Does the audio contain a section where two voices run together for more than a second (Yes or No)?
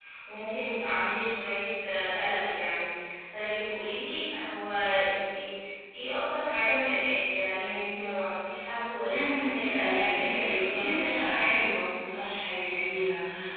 Yes